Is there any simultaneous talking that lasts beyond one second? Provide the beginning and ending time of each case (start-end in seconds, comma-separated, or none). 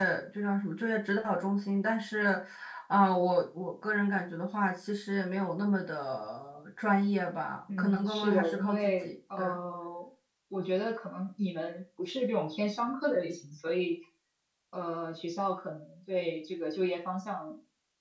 7.8-9.4